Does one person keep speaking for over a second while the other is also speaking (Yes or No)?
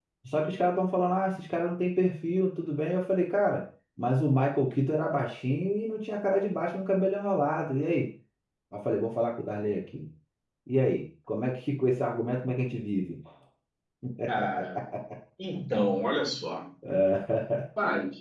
No